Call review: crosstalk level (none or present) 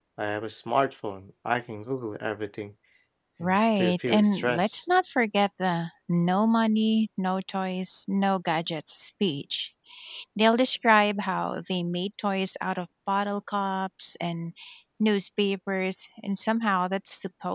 present